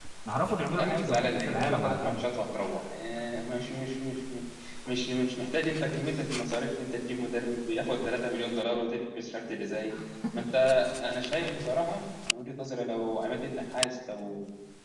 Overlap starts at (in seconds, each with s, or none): 0.8 s